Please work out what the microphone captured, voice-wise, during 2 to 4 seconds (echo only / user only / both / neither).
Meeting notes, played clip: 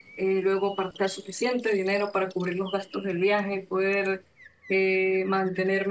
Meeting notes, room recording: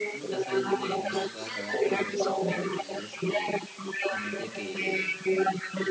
both